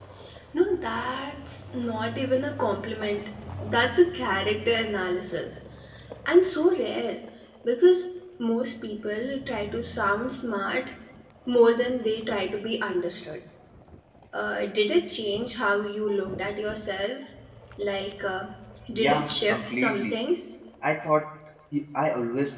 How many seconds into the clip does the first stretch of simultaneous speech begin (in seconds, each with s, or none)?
18.9 s